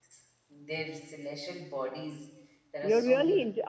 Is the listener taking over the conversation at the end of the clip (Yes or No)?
Yes